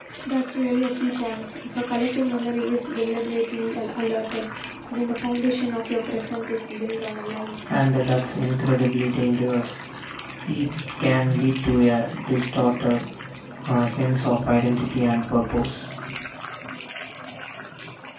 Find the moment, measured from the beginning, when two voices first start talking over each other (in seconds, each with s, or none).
none